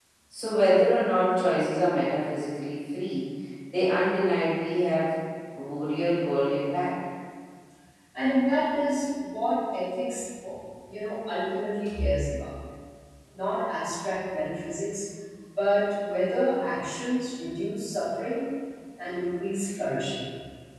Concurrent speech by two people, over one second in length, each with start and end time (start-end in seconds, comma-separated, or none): none